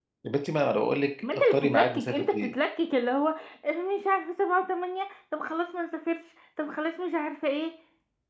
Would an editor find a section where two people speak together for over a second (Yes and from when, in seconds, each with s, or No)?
Yes, from 1.3 s